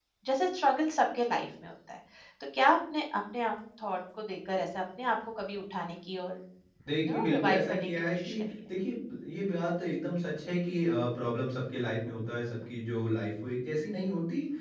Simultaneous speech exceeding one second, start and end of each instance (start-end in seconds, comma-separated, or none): 7.1-8.4